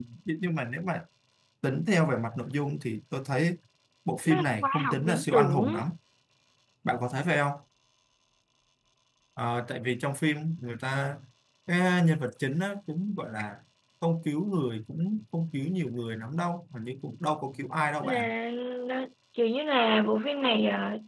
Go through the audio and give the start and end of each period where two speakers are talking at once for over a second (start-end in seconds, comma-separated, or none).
4.2-5.8